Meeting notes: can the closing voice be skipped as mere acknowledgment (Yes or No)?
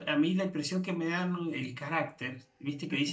Yes